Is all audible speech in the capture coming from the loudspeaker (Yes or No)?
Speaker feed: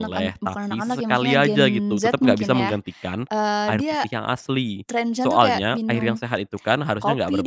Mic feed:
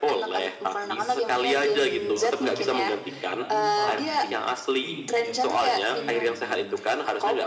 No